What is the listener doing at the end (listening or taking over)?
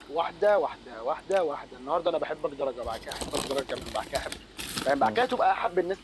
listening